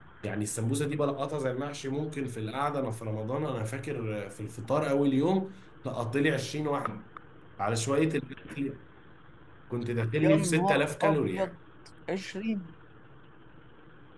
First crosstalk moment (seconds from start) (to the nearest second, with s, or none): 10 s